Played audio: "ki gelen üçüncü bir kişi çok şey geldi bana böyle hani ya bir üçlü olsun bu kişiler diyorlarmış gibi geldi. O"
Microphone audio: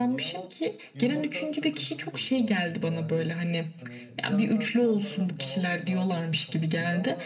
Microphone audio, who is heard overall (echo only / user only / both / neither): both